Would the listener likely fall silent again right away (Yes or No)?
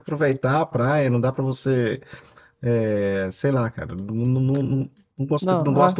Yes